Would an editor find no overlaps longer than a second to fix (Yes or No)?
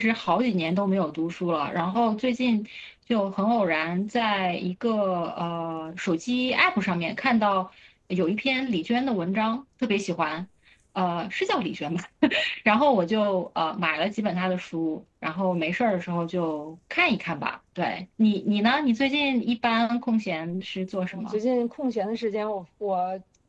Yes